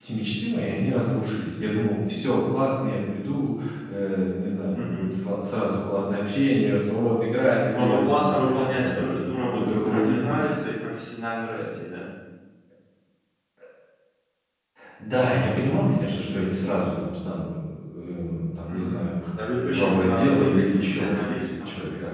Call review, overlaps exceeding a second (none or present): present